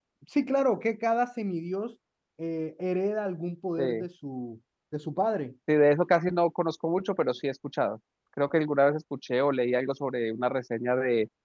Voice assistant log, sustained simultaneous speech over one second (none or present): none